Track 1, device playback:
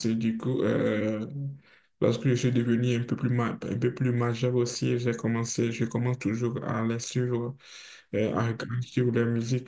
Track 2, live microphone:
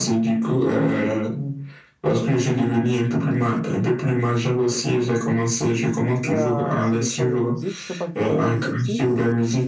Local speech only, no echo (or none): Il y a, ce sont des musiques. Je sais pas si tu connais le bikutsi.